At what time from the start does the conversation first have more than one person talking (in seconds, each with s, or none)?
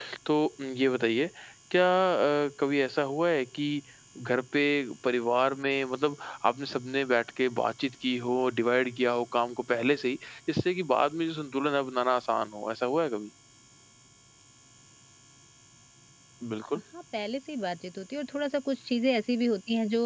none